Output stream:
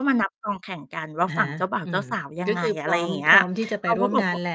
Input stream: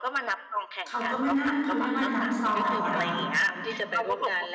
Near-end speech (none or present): present